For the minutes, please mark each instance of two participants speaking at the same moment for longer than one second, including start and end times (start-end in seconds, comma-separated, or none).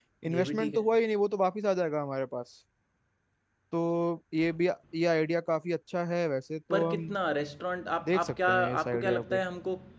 8.0-9.4